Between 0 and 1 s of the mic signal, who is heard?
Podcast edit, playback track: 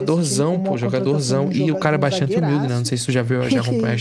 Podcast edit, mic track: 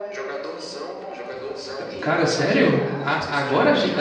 echo only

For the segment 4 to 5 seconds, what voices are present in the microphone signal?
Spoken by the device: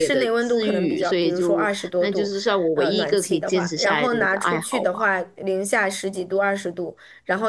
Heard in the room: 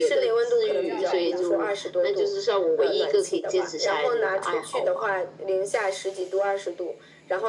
echo only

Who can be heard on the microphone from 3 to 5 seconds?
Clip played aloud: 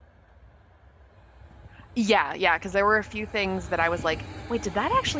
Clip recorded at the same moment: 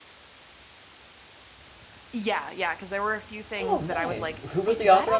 both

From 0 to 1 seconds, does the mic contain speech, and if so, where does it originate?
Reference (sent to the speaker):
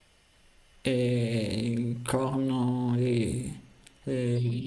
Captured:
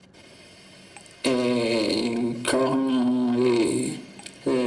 neither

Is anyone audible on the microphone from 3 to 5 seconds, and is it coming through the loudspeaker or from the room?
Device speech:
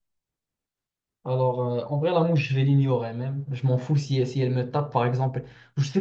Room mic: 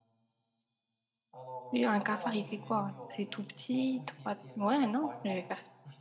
both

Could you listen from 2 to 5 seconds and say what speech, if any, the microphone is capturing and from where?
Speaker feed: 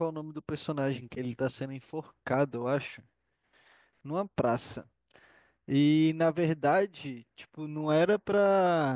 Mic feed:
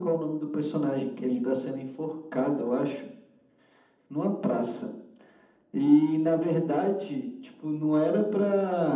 echo only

